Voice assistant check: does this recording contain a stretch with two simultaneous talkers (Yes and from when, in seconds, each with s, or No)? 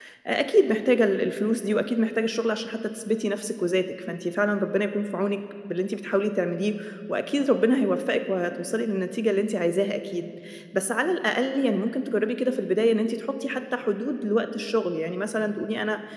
No